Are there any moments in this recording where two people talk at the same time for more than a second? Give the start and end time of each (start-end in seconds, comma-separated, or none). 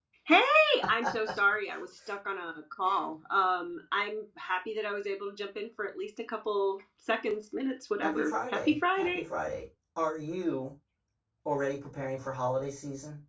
8.0-9.2